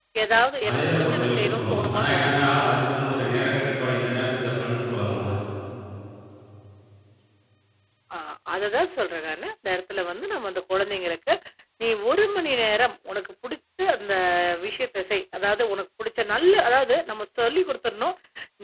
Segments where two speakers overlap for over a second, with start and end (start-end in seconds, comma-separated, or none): 0.7-2.4